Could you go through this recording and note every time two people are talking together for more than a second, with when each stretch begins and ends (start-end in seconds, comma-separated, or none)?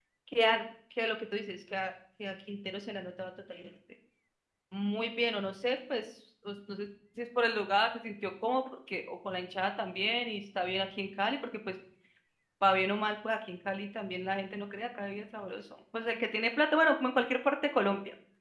none